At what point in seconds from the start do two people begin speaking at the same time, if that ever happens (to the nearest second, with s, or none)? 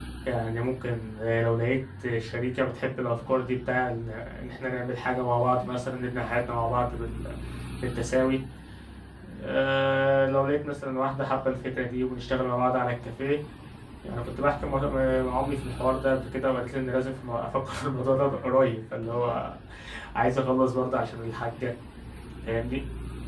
none